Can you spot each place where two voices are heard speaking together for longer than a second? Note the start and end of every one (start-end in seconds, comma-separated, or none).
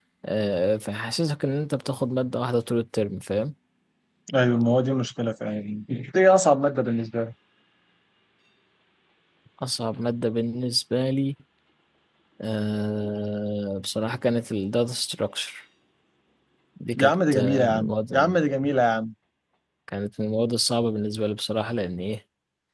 17.0-18.4